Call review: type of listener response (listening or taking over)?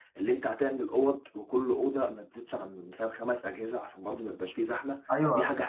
taking over